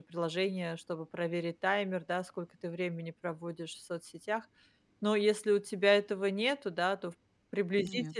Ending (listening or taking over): listening